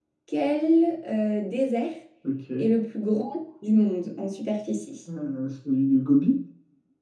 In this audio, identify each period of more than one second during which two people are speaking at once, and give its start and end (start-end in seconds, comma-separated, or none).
none